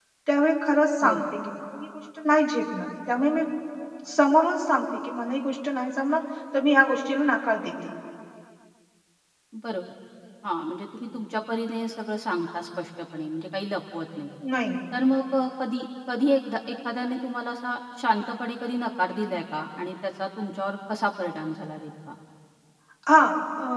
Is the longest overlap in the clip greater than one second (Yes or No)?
No